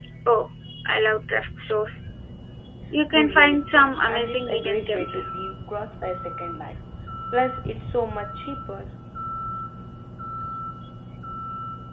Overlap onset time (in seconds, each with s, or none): 3.1 s